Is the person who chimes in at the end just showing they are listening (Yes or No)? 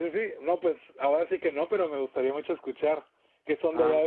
No